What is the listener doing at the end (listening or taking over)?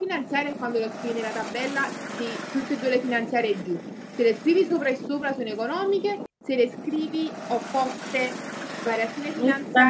listening